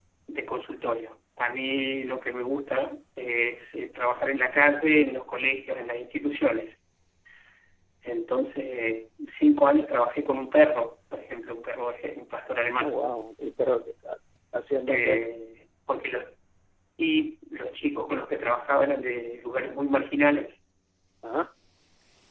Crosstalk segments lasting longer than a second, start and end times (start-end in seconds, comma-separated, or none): none